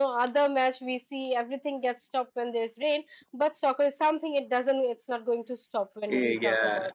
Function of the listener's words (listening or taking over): taking over